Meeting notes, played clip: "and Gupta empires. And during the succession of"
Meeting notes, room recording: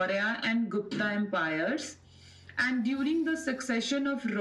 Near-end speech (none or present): none